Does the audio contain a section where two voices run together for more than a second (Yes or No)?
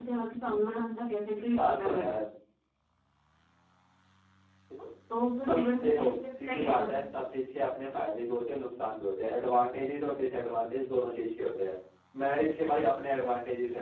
Yes